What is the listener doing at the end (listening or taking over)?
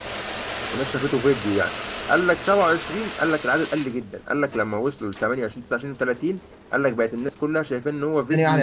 taking over